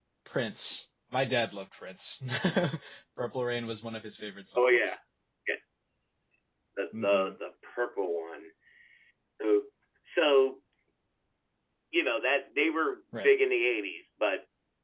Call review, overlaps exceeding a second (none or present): none